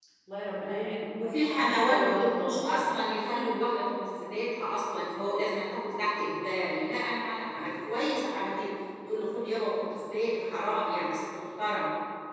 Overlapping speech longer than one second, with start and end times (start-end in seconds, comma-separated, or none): 0.6-2.8